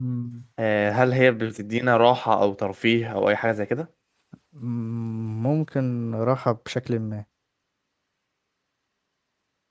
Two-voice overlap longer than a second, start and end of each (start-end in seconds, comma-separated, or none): none